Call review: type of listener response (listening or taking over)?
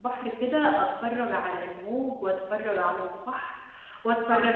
listening